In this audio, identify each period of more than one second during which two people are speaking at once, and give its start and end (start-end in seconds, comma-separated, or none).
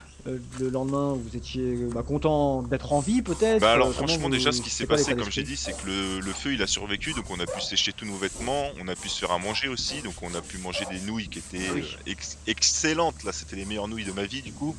3.6-5.5